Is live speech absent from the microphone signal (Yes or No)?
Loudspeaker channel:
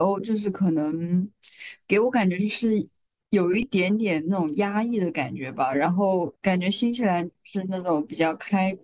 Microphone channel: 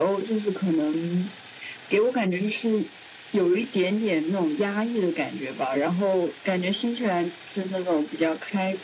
Yes